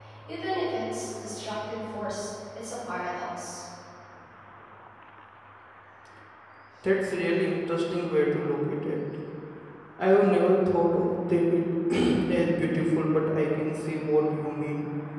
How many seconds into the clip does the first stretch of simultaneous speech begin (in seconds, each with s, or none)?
none